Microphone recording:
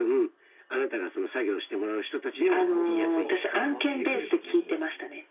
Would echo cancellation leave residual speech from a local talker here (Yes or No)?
Yes